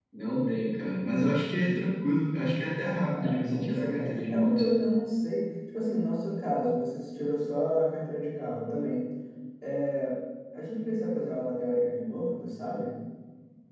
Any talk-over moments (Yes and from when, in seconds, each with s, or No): Yes, from 3.1 s